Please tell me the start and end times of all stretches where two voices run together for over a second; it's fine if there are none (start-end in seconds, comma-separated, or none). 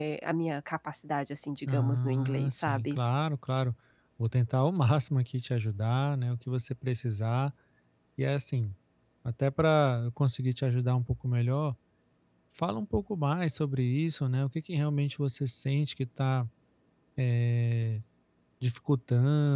1.7-3.0